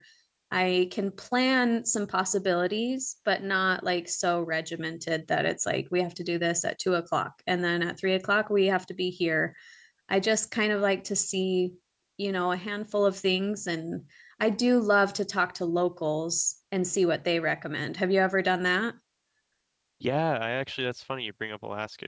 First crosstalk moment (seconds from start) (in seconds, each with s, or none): none